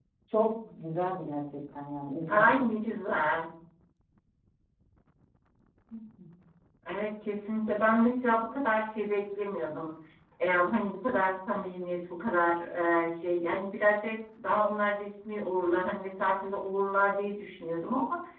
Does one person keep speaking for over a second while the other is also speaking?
No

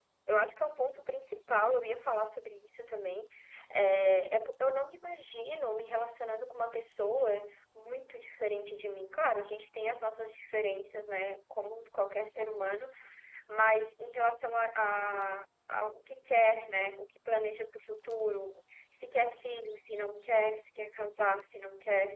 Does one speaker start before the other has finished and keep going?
No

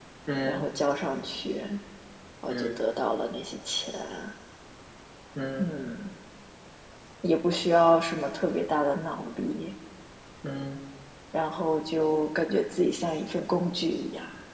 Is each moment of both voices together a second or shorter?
Yes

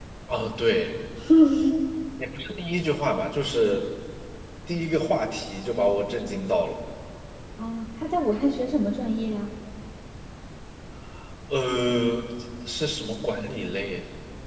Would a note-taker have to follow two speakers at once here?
No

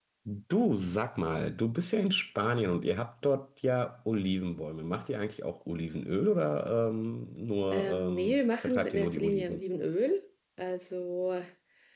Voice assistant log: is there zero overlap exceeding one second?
No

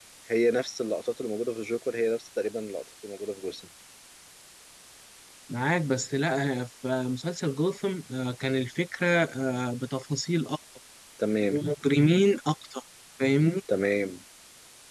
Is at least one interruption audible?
No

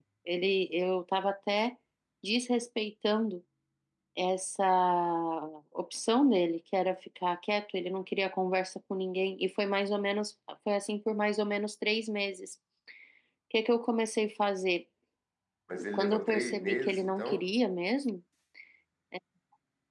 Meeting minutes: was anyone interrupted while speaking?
Yes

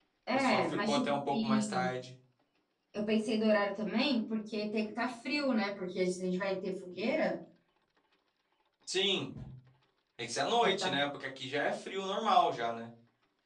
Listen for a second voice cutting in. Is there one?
Yes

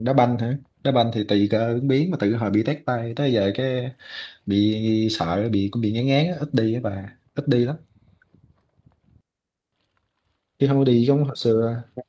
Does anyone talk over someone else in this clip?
No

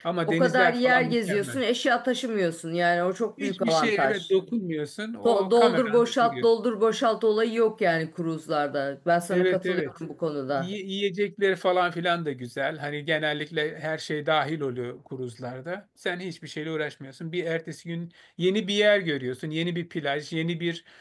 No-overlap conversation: No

